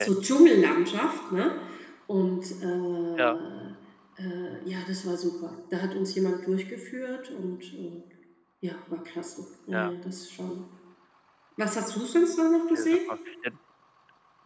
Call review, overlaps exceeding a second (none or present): none